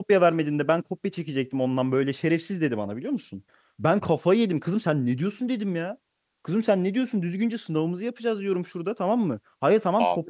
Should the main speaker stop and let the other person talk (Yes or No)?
No